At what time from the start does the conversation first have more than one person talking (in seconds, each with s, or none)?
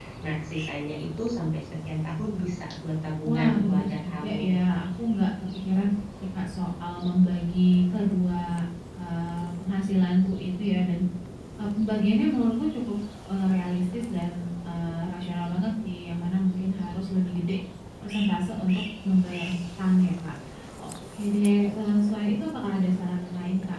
3.2 s